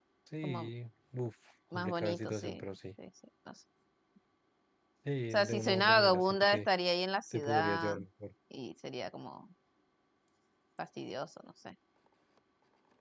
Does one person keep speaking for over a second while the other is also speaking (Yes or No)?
Yes